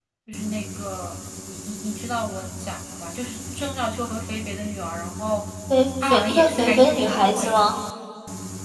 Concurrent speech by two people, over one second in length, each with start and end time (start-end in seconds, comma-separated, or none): 6.0-7.7